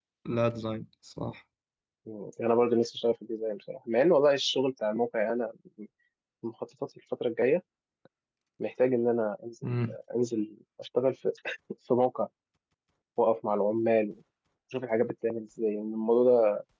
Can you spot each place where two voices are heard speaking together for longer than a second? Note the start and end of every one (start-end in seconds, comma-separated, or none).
none